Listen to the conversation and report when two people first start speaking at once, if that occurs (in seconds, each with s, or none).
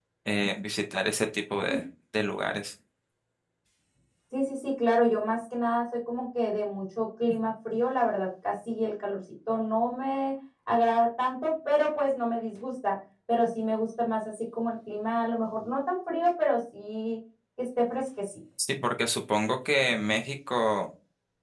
none